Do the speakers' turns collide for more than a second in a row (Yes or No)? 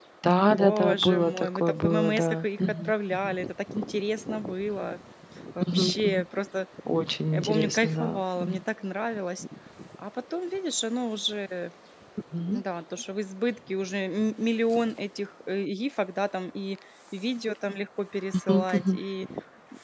Yes